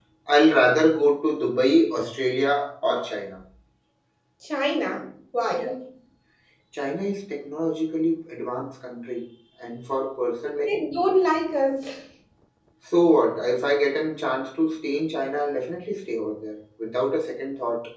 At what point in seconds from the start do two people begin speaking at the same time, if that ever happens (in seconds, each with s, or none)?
none